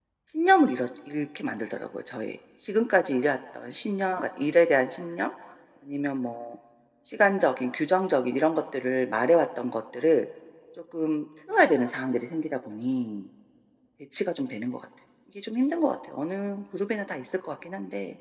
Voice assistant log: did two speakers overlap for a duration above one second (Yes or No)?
No